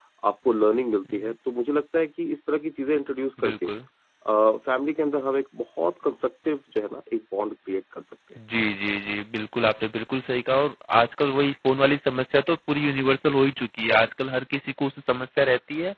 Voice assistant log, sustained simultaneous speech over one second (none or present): none